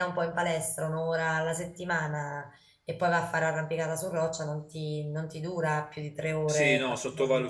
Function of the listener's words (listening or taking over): taking over